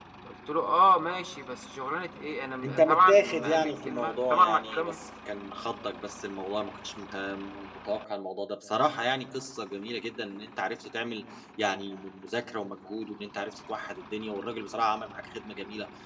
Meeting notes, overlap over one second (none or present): present